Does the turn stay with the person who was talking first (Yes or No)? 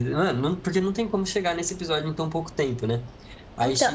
No